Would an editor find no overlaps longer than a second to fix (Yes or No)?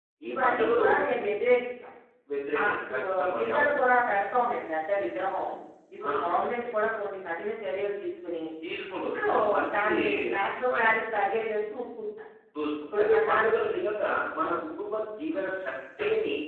No